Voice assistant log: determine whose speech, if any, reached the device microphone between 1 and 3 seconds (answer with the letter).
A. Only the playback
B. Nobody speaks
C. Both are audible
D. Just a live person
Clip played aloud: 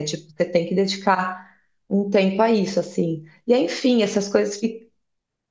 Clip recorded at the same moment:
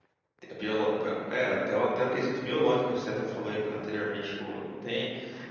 D